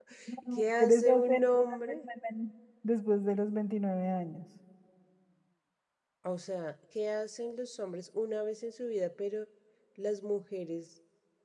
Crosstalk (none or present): present